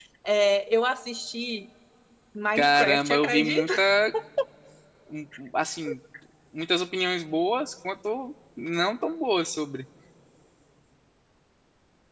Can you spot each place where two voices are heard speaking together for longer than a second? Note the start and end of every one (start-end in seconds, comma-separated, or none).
2.6-3.8